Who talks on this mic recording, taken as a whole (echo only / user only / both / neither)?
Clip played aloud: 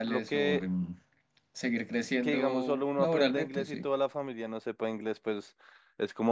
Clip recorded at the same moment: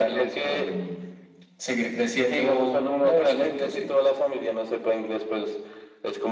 echo only